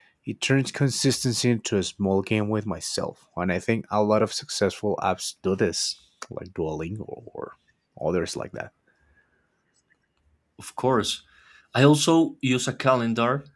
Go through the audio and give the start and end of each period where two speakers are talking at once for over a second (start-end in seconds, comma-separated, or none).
none